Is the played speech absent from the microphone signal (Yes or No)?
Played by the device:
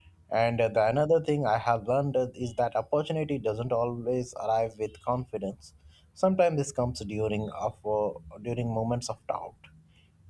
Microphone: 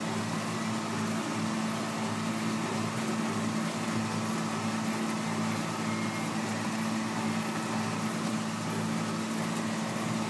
Yes